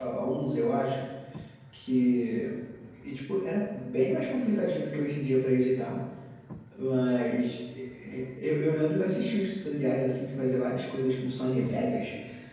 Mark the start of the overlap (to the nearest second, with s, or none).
none